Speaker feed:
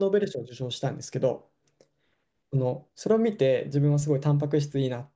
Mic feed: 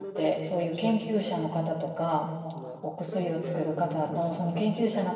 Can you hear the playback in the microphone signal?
Yes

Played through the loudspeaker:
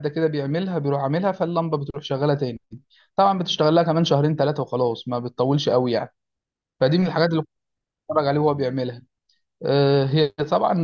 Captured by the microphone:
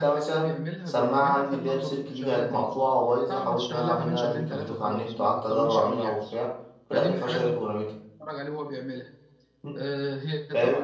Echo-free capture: No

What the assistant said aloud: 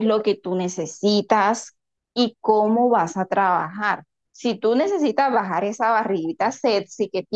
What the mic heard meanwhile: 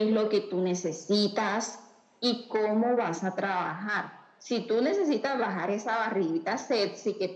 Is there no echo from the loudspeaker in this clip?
No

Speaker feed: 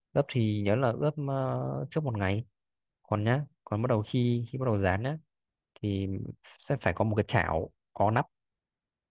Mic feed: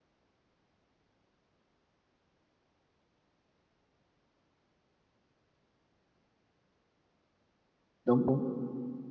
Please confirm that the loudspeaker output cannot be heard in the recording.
Yes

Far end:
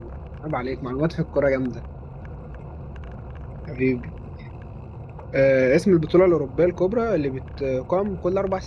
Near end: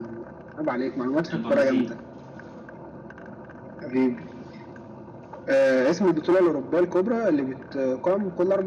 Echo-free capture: No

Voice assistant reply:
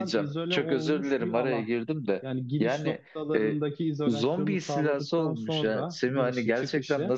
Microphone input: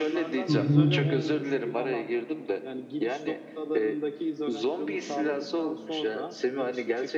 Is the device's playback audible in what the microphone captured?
Yes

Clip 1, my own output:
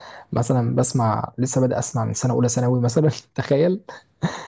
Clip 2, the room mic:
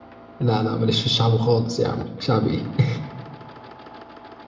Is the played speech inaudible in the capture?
Yes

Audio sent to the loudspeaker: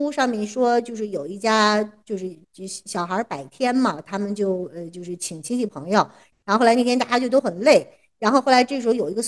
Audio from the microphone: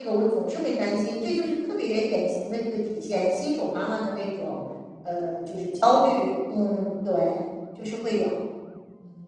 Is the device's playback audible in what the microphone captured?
No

